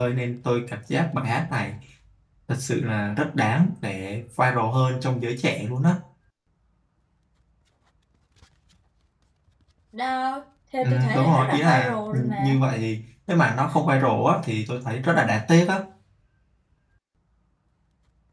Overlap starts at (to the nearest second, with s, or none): 11 s